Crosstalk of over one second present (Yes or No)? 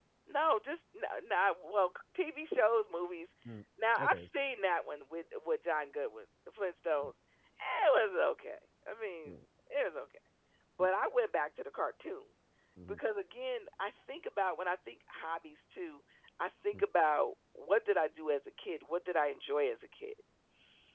No